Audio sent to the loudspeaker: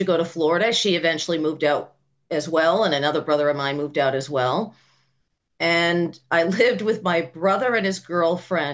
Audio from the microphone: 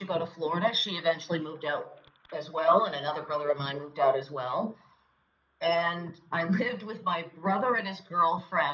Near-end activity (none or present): none